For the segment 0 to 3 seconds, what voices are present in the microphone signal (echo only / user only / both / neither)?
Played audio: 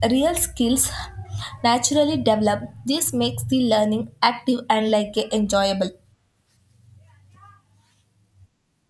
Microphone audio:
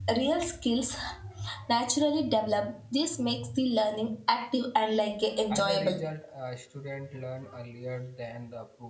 echo only